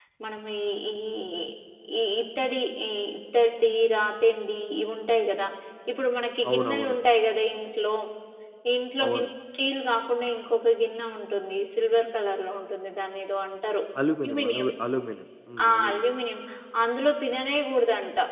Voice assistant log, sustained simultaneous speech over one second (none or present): none